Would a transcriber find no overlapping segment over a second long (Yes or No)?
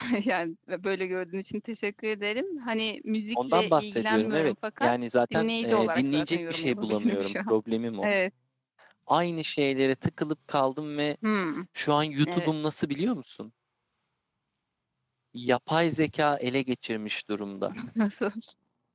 No